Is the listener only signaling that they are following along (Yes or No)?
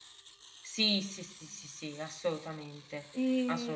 No